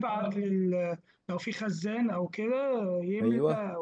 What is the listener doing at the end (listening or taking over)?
listening